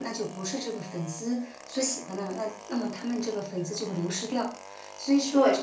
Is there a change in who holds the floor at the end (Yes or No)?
No